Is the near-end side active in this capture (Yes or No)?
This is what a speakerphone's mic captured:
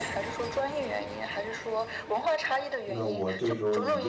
Yes